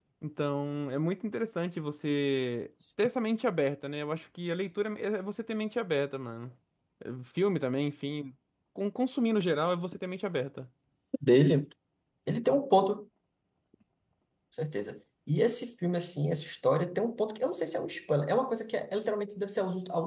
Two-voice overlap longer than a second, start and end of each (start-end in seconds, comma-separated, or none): none